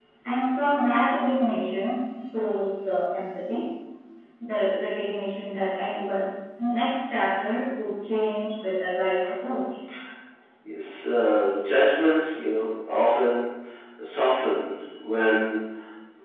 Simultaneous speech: No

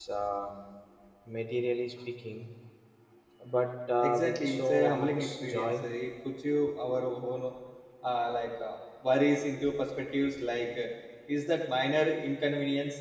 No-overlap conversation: No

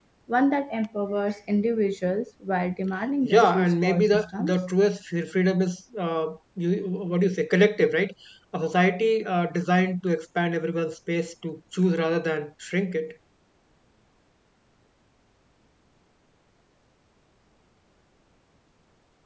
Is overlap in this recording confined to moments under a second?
No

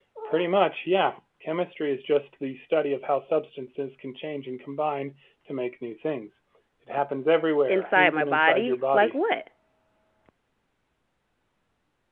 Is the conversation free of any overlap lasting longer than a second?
No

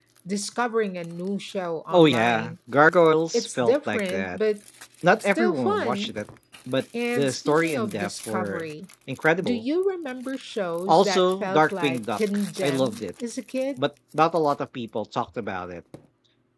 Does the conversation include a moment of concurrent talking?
Yes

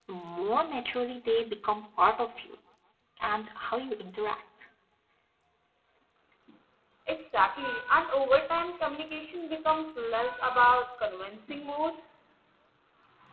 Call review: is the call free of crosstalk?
Yes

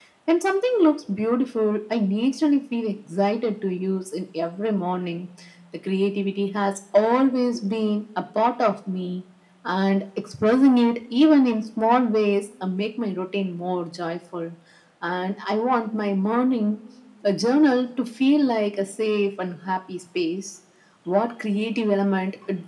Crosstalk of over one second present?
No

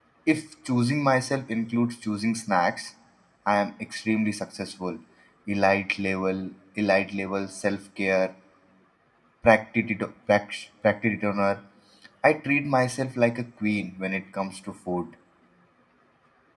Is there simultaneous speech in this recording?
No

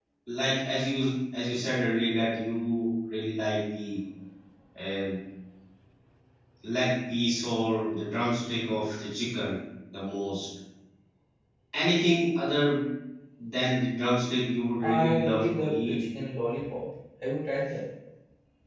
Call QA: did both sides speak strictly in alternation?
No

